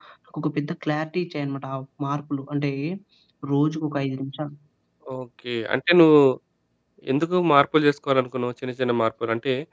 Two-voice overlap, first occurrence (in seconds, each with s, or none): none